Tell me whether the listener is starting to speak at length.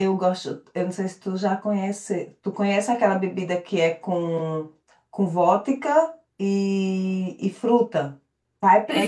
Yes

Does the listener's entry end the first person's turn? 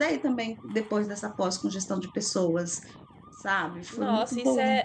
Yes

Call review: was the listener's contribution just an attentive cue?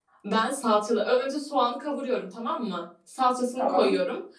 Yes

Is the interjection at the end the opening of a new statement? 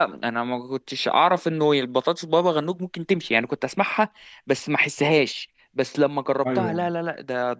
No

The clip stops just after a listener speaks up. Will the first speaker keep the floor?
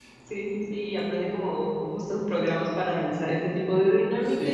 Yes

